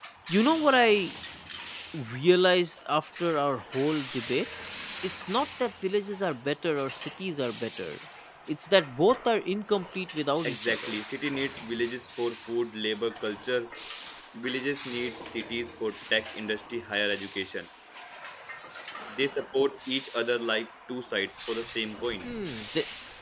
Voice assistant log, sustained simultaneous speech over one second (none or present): none